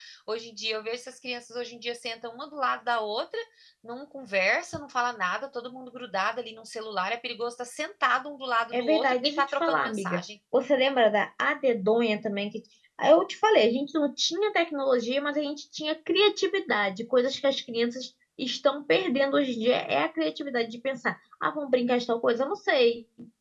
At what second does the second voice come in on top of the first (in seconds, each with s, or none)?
8.7 s